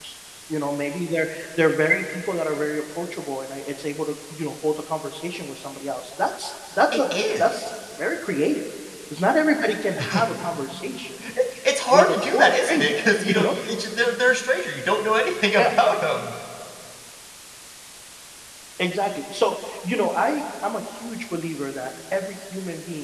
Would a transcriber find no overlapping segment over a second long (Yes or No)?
No